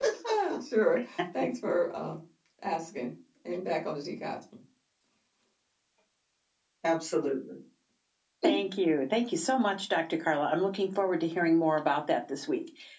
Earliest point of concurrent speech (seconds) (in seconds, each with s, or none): none